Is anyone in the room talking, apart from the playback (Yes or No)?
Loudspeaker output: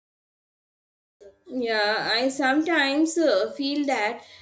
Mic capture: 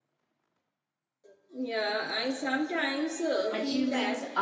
Yes